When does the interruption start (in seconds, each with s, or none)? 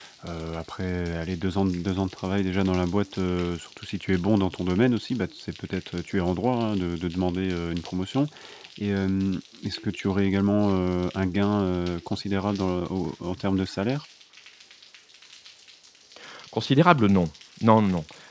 none